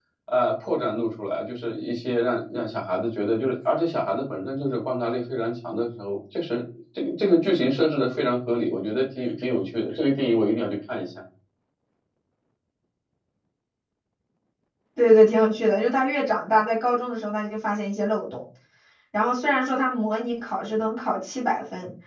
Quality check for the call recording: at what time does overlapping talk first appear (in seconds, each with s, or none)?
none